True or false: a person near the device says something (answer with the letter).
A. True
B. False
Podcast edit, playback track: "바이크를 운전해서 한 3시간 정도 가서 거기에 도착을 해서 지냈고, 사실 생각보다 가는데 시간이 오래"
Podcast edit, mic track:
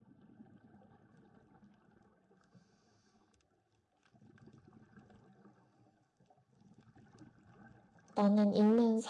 A